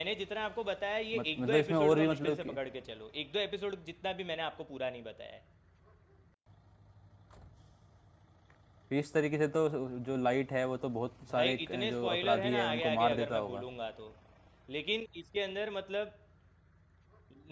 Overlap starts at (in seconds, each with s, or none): 1.1 s